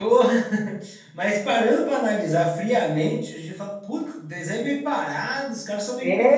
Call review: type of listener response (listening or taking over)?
taking over